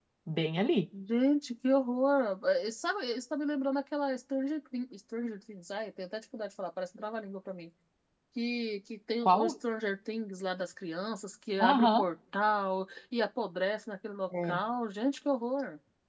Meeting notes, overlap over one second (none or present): none